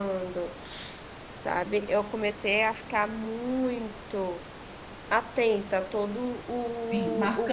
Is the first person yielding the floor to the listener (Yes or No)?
Yes